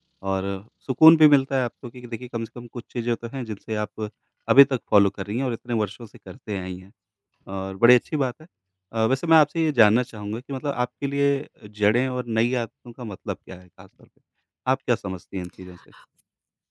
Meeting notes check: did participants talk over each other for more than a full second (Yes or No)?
No